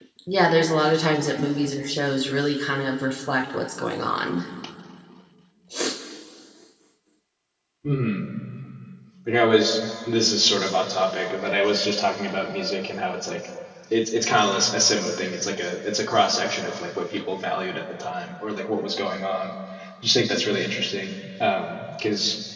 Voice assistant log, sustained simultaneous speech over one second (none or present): none